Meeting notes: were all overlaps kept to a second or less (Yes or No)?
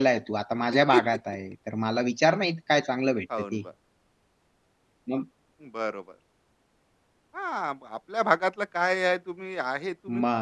Yes